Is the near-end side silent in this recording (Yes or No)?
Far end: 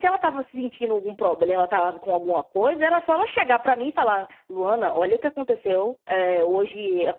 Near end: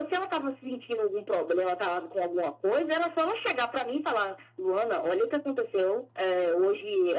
Yes